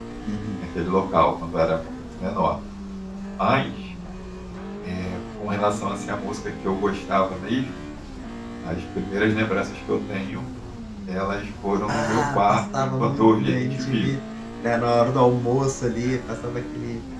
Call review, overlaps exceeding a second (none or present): present